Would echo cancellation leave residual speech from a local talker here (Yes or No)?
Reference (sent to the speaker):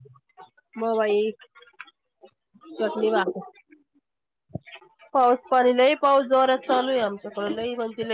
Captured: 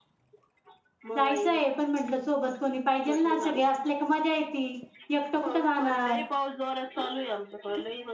Yes